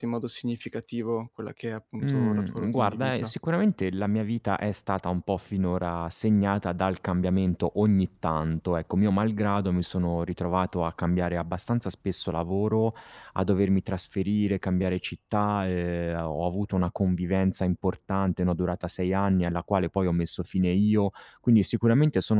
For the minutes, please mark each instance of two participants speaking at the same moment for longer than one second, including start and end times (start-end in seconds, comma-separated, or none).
2.0-3.3